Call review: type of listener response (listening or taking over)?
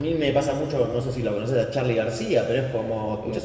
listening